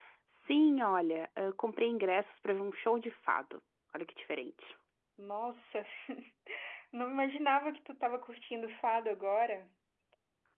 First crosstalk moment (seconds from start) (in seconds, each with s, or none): none